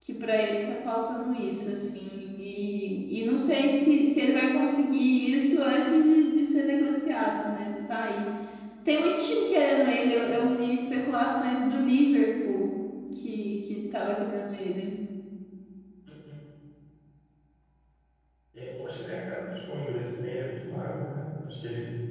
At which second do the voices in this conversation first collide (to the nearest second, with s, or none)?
none